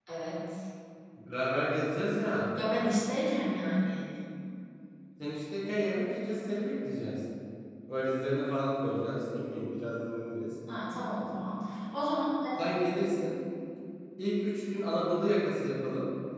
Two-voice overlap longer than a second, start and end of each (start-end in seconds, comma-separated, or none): none